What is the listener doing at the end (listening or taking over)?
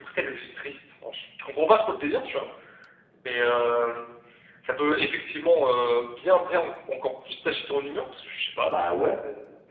listening